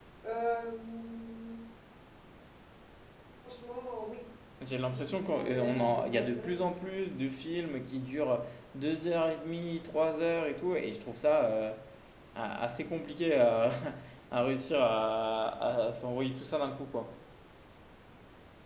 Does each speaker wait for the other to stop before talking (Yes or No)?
No